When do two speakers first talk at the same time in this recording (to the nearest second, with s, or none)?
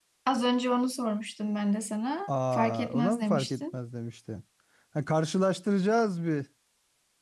2 s